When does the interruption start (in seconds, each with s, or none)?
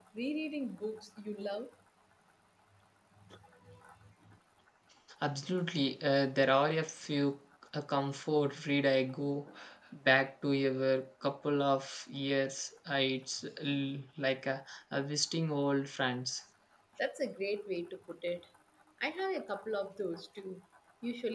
none